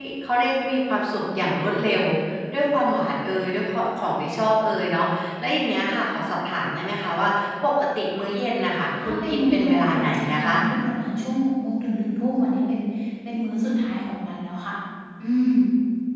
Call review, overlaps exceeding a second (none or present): present